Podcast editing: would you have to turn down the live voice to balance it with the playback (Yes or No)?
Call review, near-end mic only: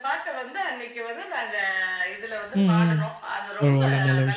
Yes